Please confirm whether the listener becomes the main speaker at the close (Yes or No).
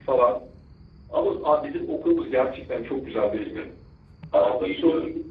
No